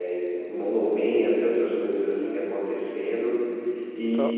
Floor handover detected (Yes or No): No